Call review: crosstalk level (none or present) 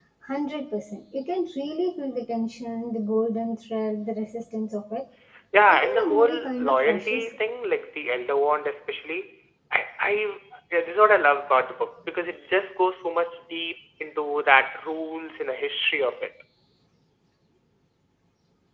present